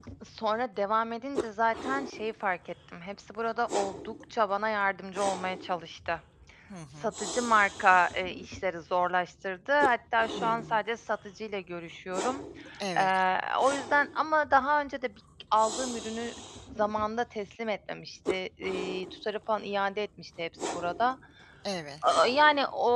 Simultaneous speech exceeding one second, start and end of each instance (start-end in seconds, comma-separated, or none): none